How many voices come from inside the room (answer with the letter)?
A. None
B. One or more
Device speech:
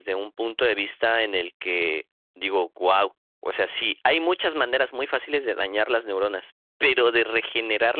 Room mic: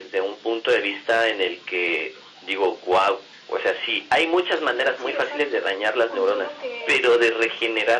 B